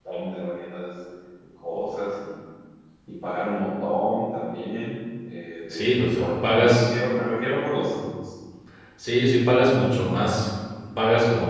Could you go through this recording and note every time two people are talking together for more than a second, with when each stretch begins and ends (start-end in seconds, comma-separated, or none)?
5.7-7.0